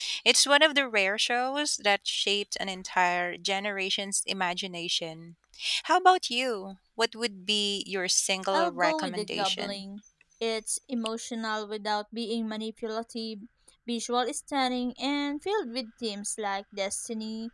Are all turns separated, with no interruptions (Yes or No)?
No